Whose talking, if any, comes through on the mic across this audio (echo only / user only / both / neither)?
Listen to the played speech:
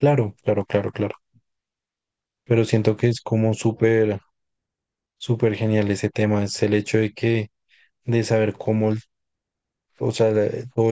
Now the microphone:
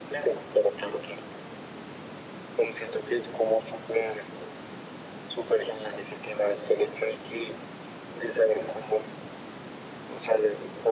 echo only